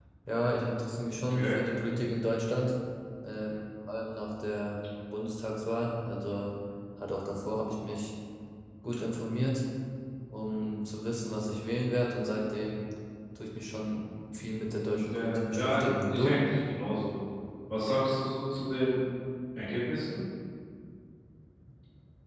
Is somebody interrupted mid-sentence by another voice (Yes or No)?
Yes